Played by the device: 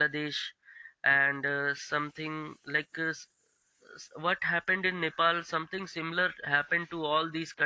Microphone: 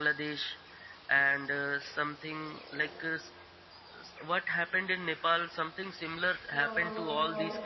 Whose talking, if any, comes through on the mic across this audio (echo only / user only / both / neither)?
both